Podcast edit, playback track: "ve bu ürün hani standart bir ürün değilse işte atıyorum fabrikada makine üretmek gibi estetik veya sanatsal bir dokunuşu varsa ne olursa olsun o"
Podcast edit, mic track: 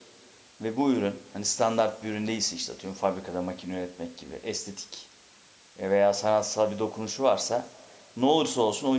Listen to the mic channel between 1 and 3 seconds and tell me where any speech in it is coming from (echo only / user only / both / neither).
echo only